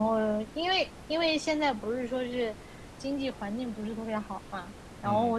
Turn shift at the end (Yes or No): No